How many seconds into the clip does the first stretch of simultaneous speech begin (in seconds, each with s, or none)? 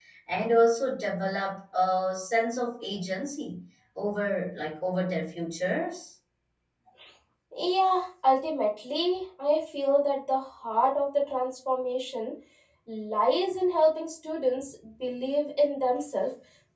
none